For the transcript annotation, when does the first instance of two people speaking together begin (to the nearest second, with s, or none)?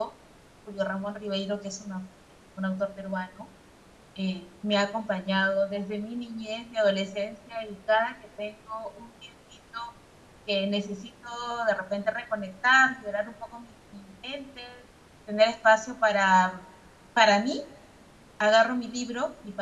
none